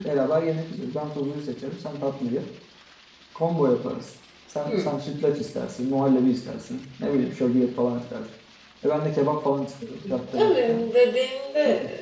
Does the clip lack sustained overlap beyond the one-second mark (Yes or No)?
Yes